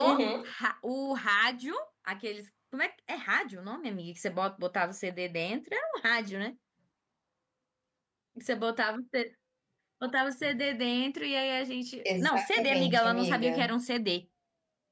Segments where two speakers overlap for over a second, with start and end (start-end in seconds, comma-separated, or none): 12.1-13.7